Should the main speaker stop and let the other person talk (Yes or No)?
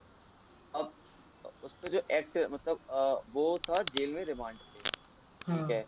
No